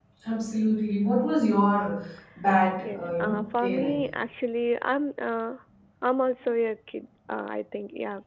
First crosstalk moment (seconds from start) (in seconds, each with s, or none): 2.8 s